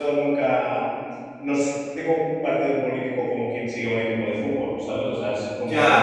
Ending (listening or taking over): taking over